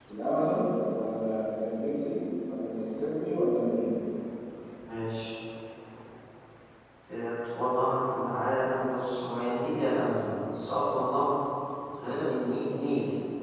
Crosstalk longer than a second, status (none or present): none